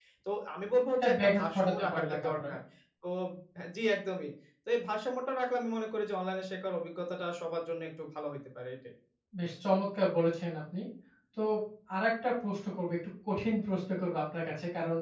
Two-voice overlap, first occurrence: 1.0 s

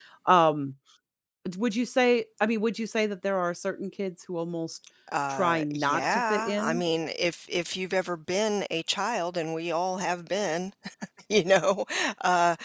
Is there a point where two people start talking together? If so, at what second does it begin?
5.3 s

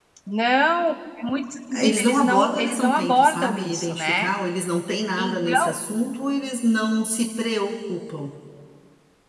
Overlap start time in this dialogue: 1.8 s

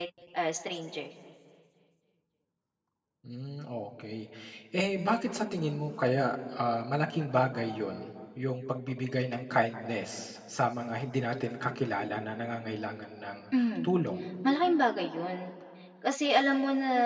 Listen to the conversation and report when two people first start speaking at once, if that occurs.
none

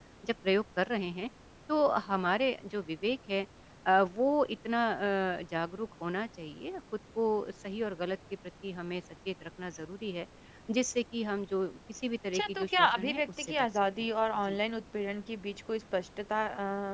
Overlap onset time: 12.3 s

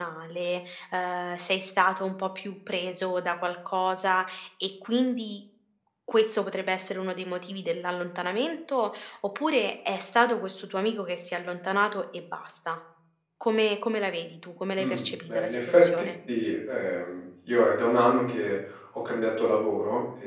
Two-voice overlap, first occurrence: 14.8 s

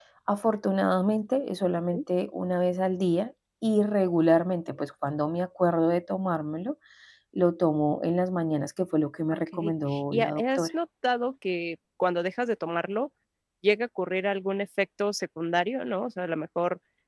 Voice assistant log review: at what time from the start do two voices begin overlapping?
9.3 s

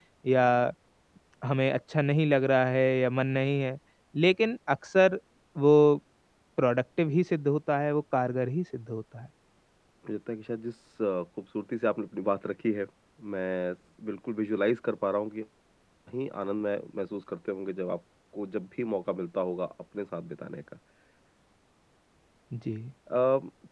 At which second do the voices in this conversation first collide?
none

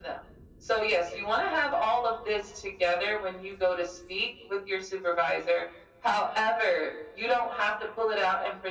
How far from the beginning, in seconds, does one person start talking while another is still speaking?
none

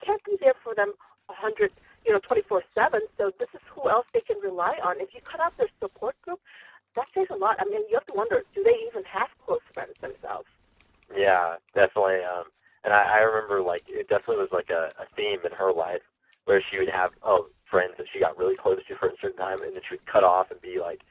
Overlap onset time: none

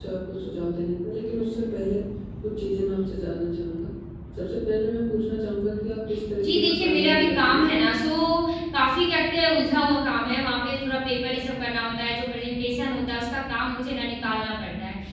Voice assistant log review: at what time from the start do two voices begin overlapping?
6.3 s

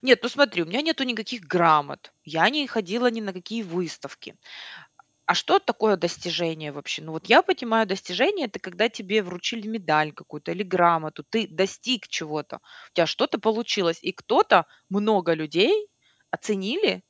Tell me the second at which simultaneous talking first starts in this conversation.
none

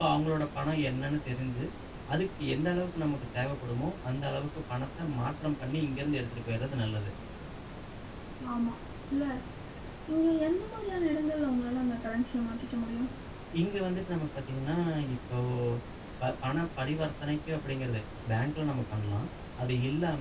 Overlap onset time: none

